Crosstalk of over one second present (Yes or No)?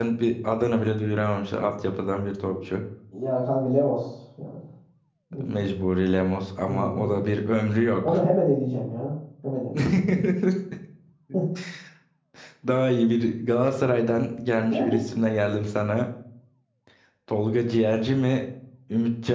No